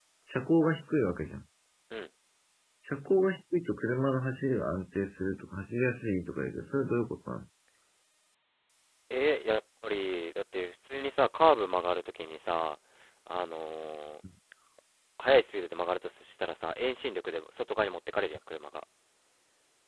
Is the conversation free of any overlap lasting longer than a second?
Yes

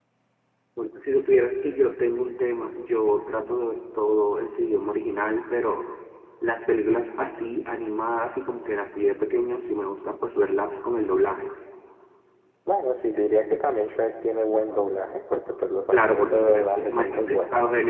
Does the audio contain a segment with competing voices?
Yes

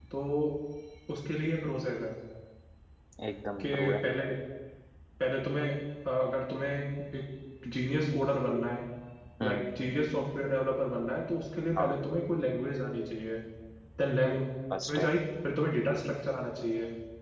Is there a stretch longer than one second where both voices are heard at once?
No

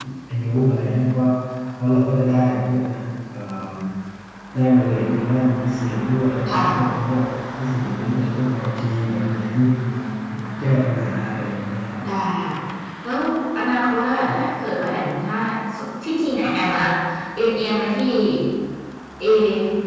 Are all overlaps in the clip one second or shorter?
Yes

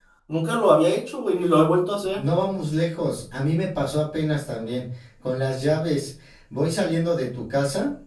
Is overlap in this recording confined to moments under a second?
Yes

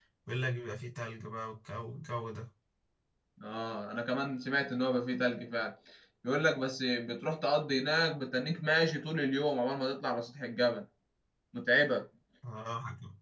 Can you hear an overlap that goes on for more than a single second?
No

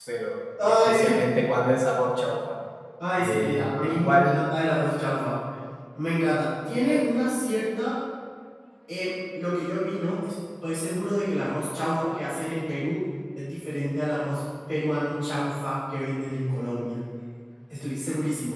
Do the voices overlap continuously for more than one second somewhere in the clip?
Yes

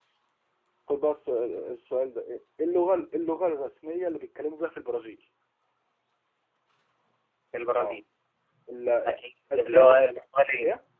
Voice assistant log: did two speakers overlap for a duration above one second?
No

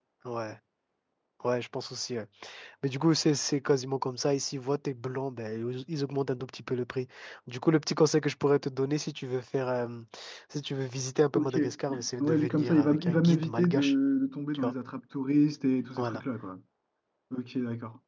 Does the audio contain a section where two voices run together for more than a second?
Yes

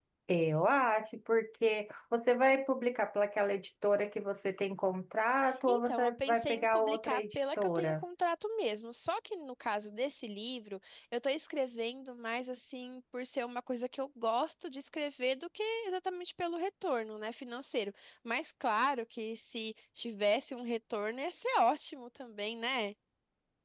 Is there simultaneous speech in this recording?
Yes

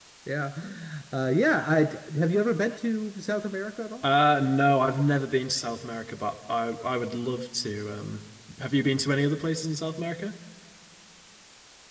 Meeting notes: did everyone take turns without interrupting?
Yes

